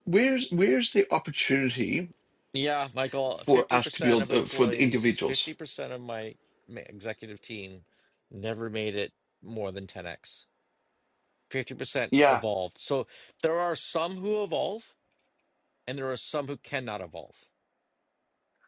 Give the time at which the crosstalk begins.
3.5 s

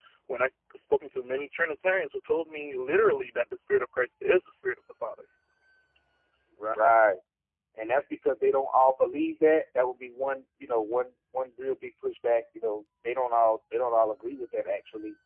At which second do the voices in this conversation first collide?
none

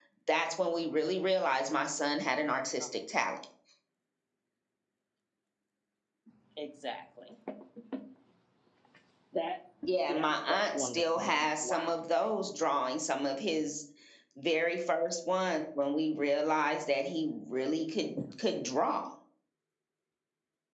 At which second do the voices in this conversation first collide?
10.1 s

